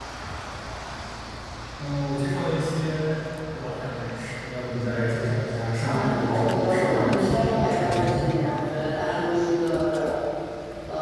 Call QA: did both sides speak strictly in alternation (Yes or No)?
No